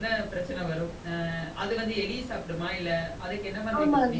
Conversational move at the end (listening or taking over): taking over